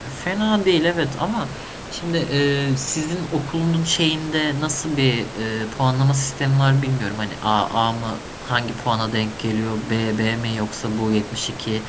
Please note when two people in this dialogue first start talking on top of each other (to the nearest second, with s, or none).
none